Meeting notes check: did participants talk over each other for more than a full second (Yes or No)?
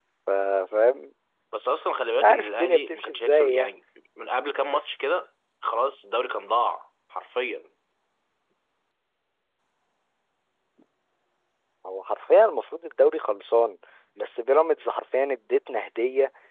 Yes